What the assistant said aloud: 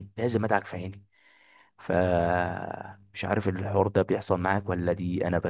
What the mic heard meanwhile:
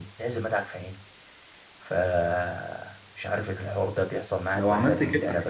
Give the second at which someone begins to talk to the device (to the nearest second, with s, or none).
5 s